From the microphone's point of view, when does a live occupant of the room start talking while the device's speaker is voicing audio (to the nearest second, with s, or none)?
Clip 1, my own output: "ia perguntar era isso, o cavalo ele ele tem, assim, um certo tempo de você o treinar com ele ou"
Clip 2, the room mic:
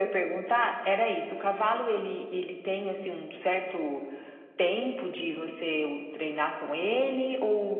none